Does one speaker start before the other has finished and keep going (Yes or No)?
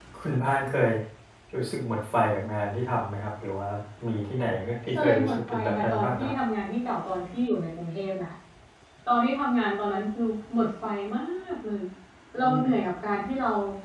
Yes